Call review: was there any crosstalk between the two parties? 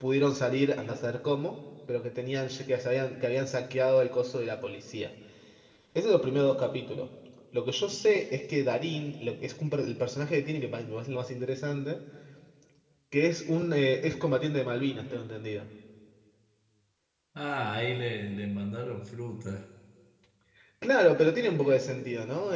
No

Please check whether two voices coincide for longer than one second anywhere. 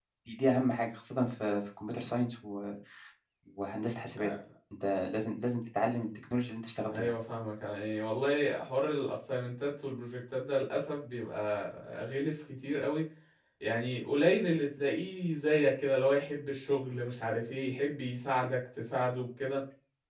No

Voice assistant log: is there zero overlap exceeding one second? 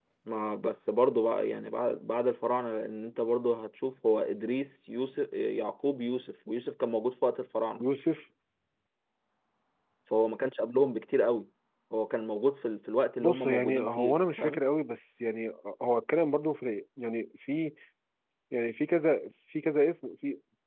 No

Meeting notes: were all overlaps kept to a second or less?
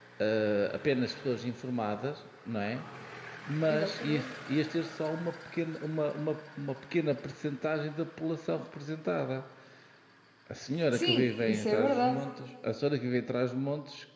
No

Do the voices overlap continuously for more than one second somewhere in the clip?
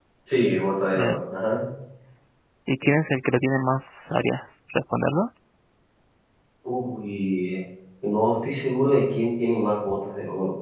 No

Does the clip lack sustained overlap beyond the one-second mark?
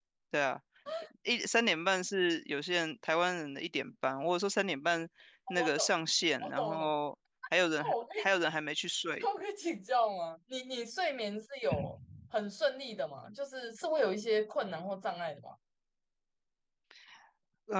Yes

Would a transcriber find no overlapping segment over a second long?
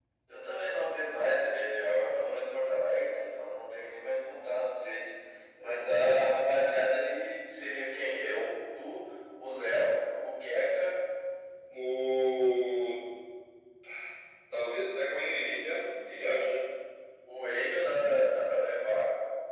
Yes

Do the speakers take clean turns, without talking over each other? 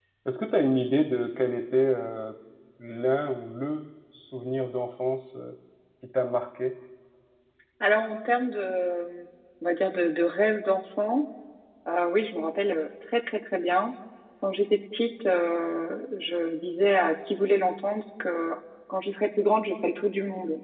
Yes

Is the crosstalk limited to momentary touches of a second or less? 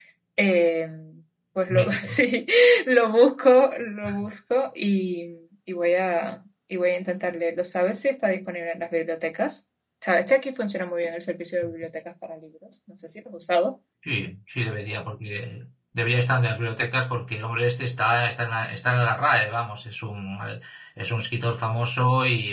Yes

